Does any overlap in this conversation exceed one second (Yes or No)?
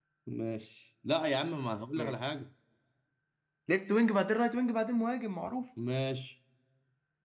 No